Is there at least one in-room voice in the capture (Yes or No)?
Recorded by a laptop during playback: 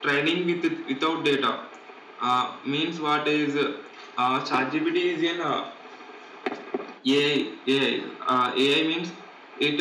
No